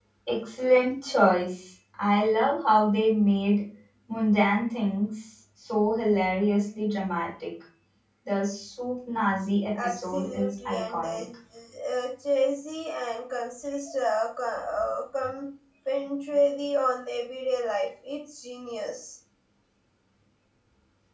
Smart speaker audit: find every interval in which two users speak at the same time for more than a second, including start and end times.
9.8-11.2

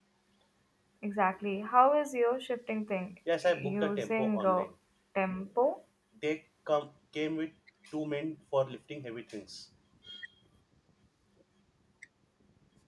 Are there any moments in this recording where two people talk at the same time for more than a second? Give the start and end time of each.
3.4-4.6

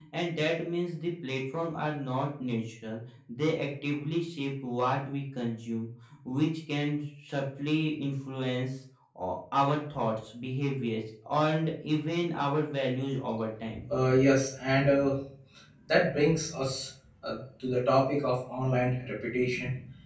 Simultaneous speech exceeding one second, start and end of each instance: none

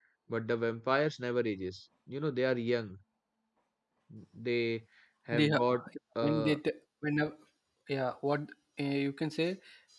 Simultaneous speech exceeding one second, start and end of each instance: none

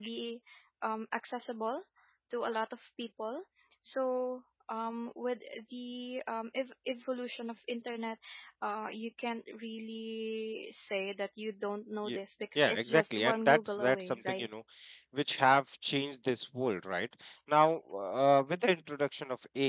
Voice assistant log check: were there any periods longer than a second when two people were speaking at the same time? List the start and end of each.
12.6-14.5

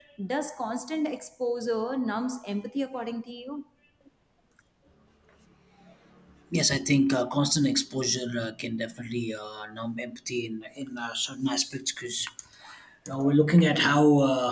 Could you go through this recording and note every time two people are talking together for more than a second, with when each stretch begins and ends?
none

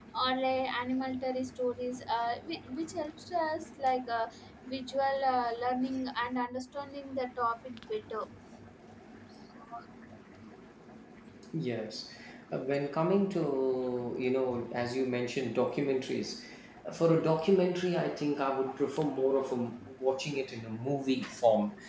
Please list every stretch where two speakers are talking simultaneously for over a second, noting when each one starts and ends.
none

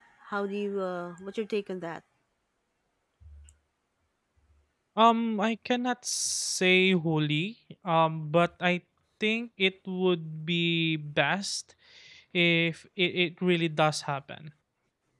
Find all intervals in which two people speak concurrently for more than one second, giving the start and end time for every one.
none

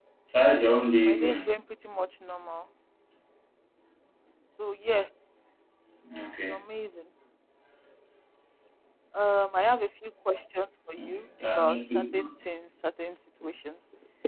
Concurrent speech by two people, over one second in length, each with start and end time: 11.0-12.3

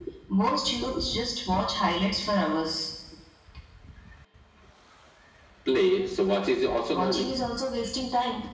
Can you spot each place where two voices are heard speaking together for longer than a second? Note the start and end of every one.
none

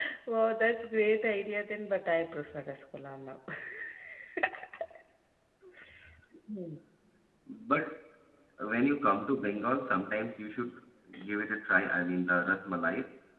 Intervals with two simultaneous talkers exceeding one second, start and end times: none

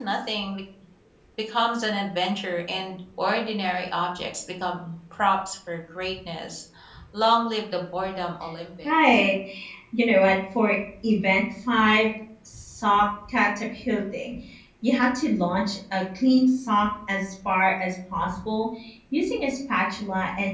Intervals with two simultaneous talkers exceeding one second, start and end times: none

